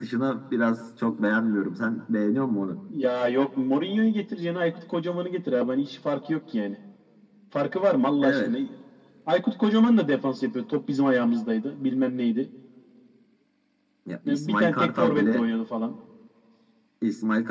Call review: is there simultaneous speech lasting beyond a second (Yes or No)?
Yes